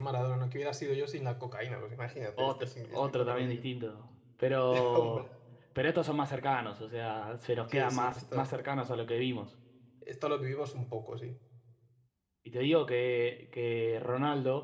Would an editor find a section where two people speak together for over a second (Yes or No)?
Yes